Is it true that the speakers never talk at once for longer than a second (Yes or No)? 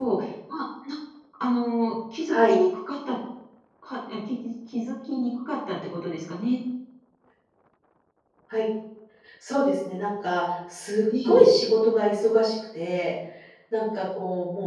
Yes